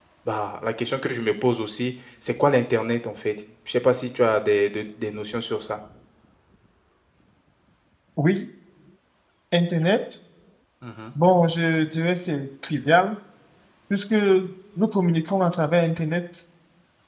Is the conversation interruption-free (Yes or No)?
Yes